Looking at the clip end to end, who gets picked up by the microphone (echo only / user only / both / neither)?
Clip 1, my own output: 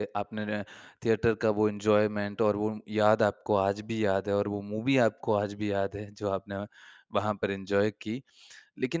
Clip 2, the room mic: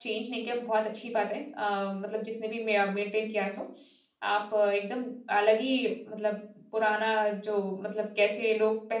user only